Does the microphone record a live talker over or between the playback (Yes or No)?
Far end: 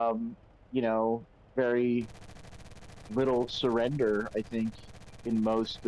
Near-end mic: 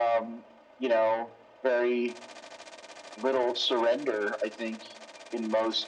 No